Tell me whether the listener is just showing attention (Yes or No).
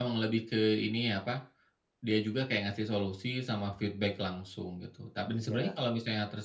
Yes